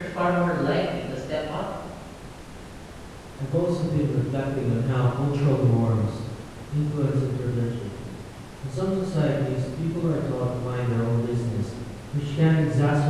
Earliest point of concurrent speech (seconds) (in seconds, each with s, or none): none